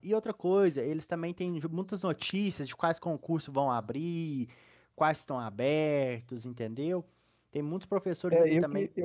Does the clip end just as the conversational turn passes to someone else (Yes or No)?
Yes